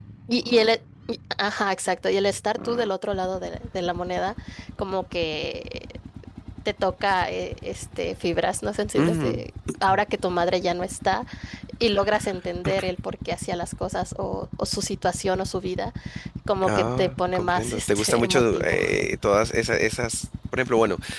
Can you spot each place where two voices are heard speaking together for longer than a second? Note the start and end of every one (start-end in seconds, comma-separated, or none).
16.6-18.8